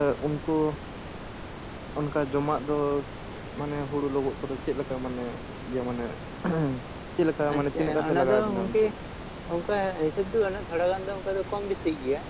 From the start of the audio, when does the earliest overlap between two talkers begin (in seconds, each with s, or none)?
7.5 s